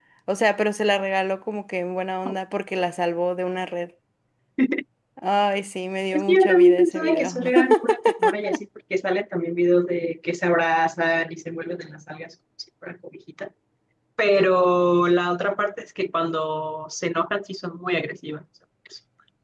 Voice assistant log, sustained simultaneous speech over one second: present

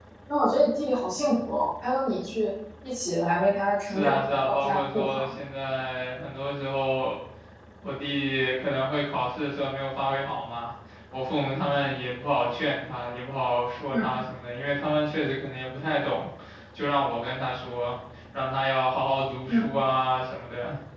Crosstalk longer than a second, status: present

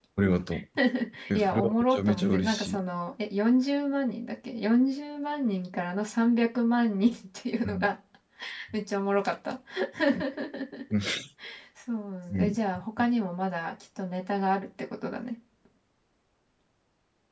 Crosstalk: present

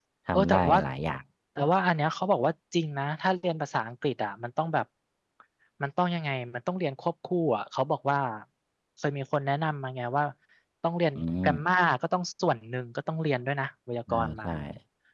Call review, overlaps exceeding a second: none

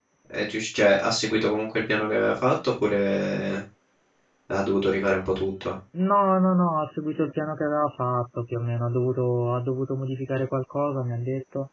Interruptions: none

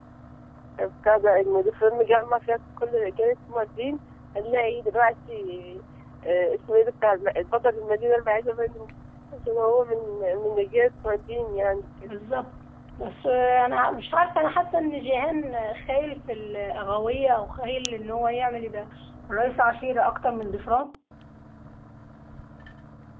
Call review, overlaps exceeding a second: none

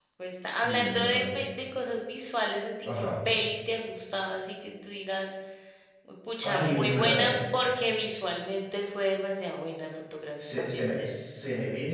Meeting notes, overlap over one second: present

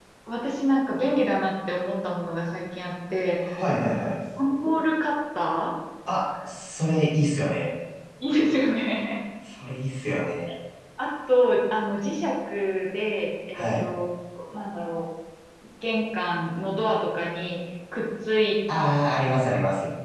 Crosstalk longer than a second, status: none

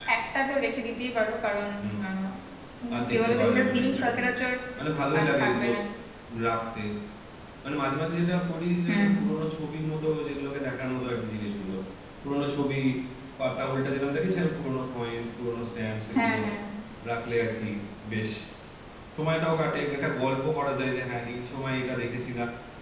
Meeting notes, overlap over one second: present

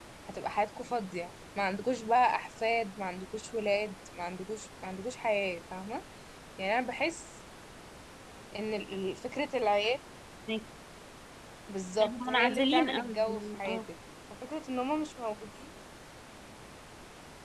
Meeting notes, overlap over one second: present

